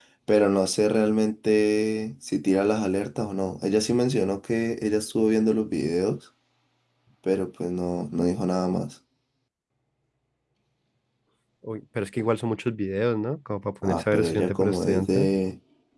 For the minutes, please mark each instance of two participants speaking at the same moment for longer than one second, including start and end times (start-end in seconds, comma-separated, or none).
13.8-15.3